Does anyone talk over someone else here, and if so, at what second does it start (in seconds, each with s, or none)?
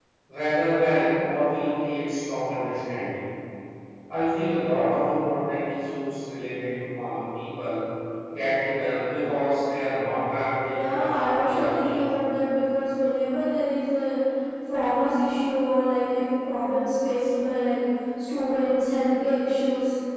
10.7 s